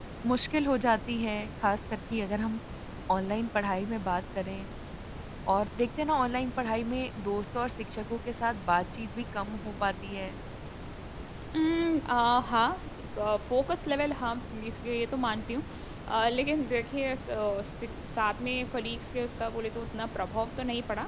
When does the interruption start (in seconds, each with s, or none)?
none